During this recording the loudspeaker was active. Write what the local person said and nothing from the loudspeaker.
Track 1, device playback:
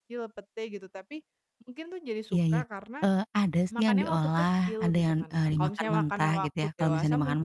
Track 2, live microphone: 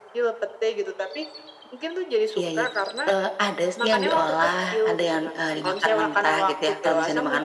none

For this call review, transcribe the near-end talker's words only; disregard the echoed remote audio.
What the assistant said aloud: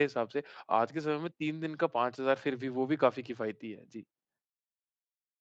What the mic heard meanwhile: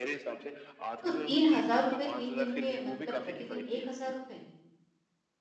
तो ₹3000 3 दिन के, मतलब प्रतिदिन ₹1000?

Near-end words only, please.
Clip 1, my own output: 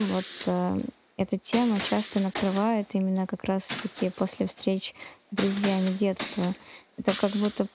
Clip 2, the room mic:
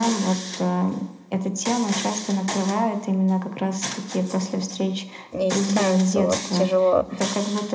не и становится вот тяжело.

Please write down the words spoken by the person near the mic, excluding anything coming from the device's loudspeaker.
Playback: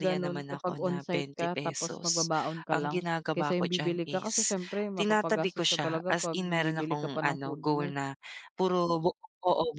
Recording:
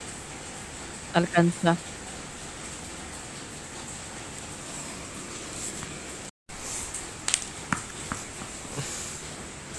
Alkansya.

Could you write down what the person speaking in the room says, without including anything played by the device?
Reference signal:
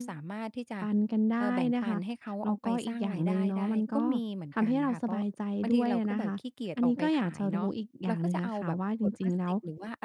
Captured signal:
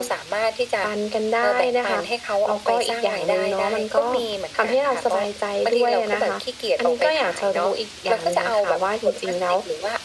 none

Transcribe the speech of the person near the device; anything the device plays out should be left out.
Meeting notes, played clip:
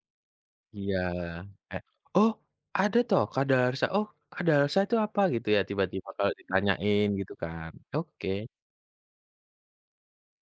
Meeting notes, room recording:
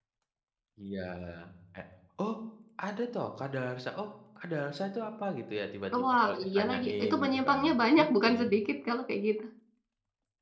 E wah, iya, lagi. Itu menyimpangnya banyak bukan sedikit kalau kayak gitu.

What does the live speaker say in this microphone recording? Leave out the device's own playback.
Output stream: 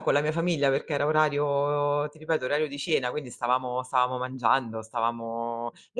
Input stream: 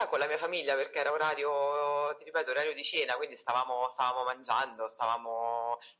none

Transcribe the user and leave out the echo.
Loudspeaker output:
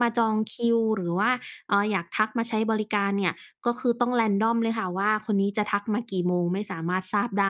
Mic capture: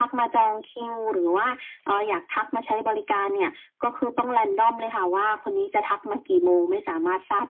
none

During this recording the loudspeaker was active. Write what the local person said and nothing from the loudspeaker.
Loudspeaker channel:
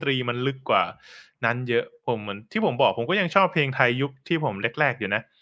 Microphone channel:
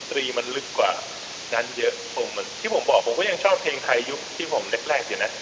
none

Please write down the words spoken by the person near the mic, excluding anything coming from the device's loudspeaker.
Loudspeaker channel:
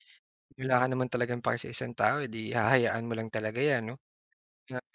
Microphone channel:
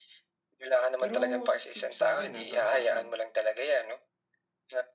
Pero si sa'kin, ah, para sa'kin,

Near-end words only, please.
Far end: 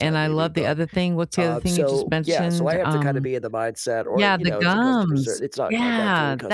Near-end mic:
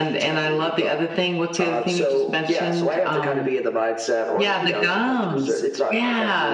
none

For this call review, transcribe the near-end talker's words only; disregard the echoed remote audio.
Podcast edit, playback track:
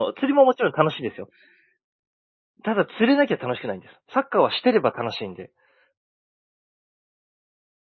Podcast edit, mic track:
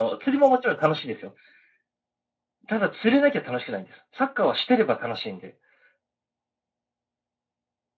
none

